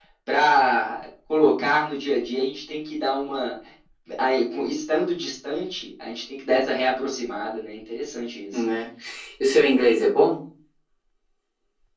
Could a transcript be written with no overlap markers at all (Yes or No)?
Yes